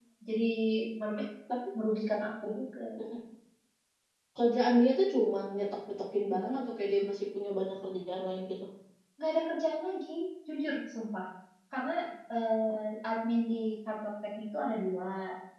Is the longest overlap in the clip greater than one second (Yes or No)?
No